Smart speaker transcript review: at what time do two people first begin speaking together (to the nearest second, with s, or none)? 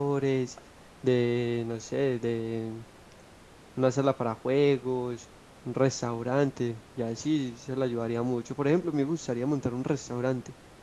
none